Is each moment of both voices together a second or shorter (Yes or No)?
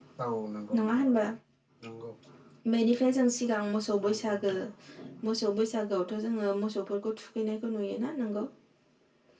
Yes